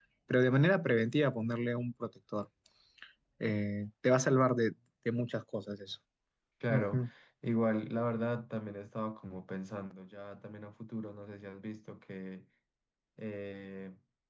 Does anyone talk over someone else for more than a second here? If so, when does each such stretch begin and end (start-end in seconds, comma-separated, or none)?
none